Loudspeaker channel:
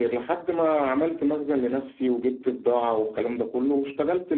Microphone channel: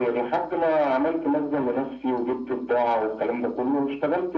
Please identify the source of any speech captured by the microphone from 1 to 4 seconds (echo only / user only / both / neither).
echo only